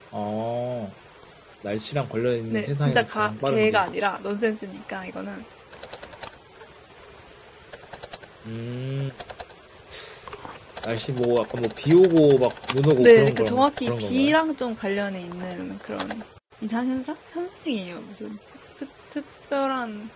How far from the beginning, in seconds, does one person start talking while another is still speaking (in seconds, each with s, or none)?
2.5 s